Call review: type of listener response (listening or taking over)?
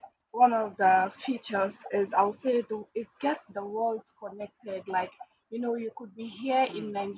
listening